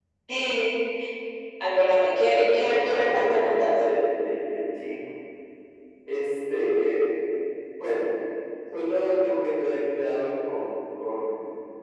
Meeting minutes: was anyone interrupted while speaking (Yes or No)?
Yes